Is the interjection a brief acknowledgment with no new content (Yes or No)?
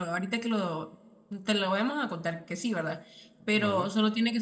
Yes